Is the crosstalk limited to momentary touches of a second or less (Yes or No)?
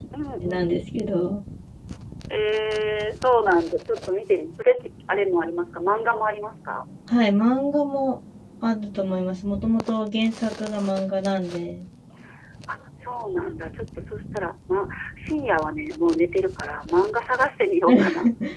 Yes